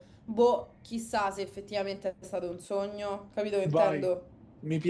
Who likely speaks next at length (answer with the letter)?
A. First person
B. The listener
B